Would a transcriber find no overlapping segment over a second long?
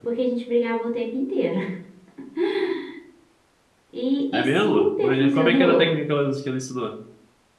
No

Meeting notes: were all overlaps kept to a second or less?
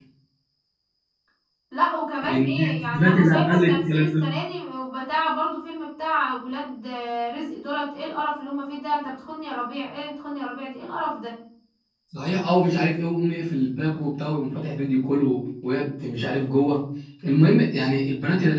No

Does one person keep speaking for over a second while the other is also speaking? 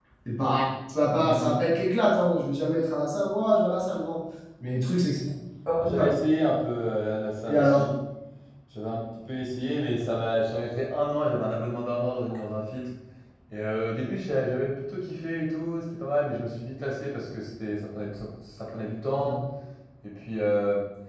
No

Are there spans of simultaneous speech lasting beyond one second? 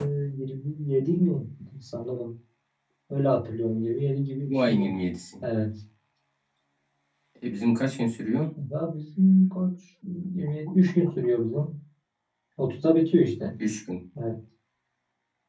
No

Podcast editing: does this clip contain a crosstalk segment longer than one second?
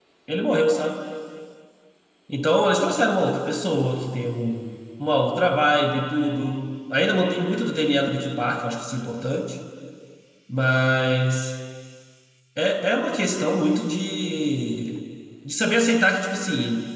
No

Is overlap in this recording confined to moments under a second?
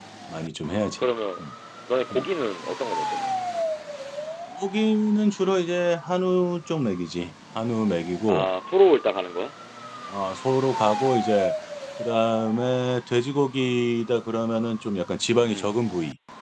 Yes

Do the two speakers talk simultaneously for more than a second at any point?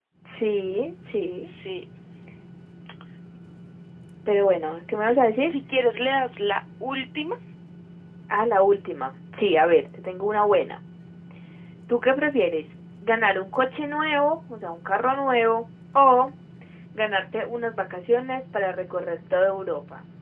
No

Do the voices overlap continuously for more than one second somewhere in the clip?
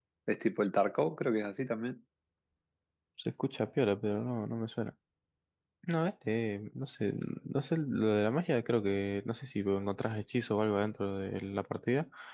No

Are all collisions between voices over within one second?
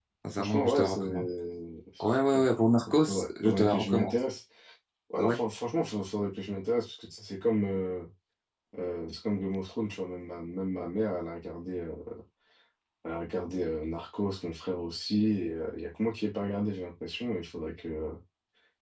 No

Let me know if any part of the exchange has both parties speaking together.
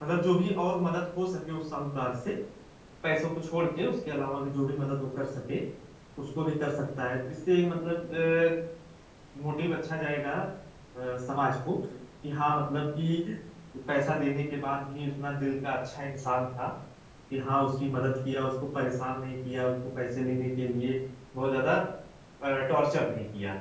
No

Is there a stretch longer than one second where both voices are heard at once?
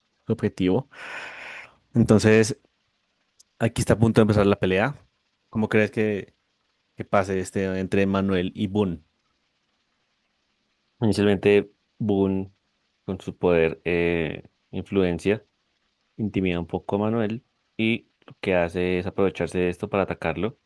No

